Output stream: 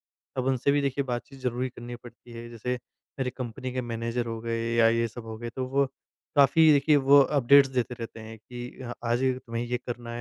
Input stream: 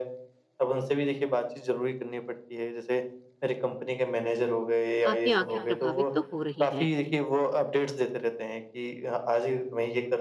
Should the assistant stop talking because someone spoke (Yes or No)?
Yes